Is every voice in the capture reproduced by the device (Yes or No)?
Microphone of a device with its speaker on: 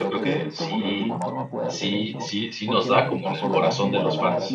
No